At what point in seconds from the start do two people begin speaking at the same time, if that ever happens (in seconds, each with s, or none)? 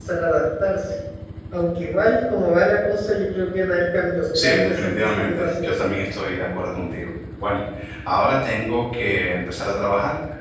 4.3 s